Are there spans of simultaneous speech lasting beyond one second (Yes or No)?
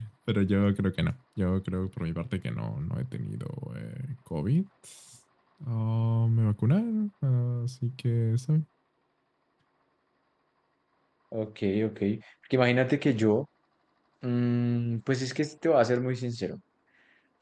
No